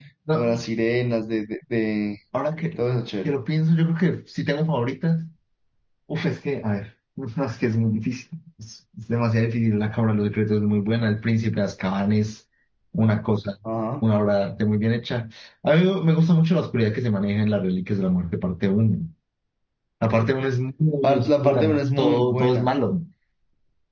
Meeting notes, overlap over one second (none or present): present